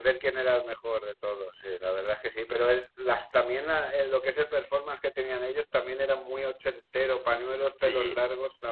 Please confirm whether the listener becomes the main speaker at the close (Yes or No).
No